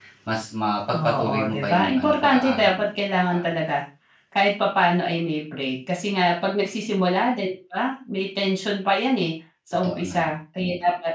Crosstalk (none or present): present